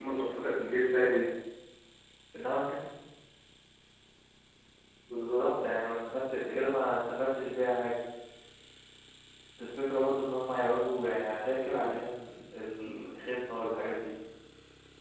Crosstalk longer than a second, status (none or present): none